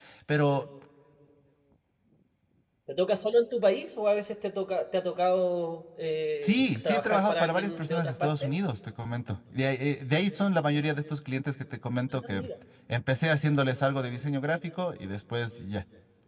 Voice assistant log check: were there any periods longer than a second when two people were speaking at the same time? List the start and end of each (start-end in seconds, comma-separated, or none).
6.4-8.5